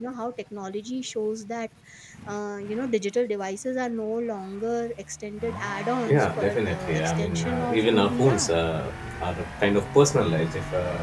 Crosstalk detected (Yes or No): Yes